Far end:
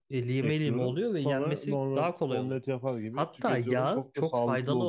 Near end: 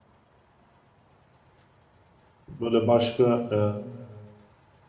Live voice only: Böyle başka e,

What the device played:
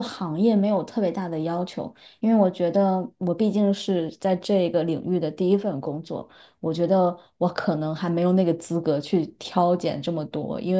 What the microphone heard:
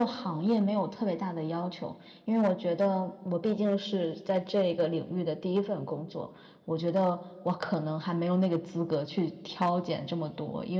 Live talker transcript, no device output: none

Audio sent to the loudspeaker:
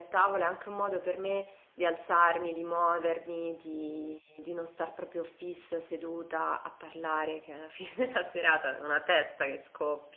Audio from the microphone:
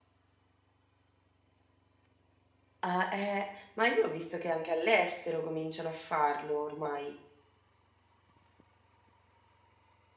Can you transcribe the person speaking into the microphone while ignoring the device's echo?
Ah, eh, ma io ho visto che anche all'estero cominciano a farlo ormai.

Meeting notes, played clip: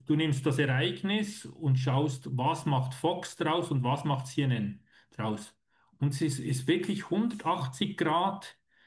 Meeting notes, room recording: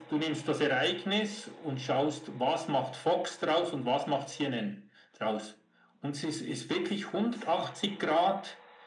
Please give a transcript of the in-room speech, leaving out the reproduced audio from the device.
none

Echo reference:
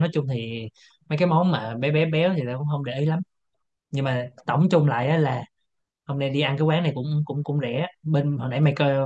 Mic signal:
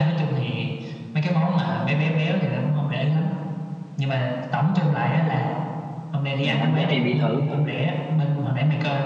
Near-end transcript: Nào, anh dắt em đi thử

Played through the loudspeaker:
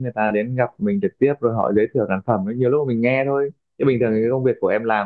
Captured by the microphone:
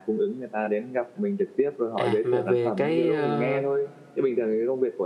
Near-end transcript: à mà về cái ờ,

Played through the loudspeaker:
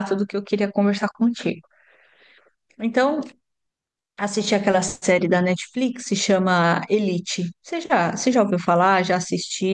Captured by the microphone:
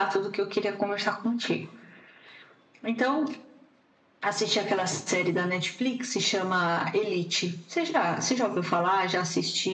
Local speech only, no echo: none

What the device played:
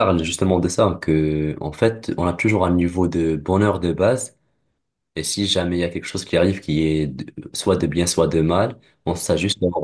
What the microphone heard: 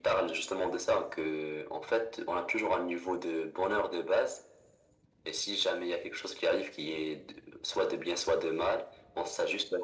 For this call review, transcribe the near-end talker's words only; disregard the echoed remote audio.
none

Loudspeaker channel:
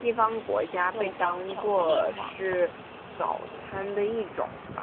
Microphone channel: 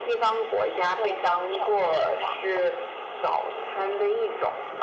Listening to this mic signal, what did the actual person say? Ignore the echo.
none

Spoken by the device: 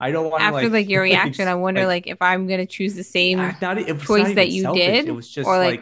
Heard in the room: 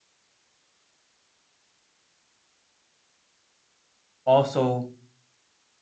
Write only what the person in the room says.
also

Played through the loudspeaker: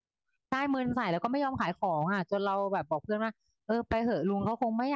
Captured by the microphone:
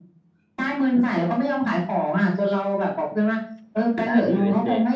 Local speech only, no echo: ใช่ที่ USJ

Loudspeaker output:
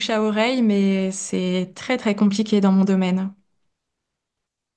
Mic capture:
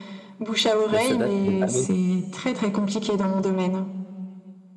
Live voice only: Mais ça date des années.

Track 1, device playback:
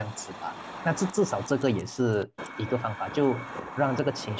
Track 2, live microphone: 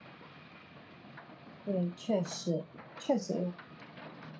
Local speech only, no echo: 对，确实确实，

